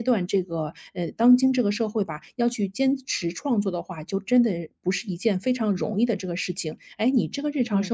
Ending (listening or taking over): listening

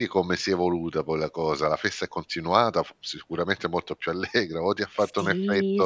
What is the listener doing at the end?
taking over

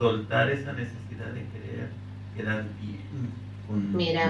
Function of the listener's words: taking over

